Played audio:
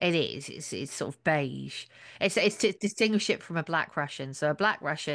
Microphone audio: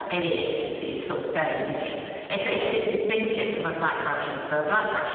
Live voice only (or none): yeah,